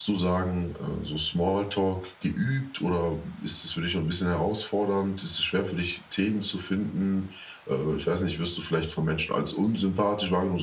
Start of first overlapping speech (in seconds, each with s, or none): none